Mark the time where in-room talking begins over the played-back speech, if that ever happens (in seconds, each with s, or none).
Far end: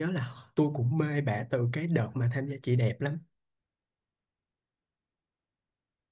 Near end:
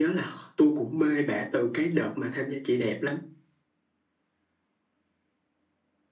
none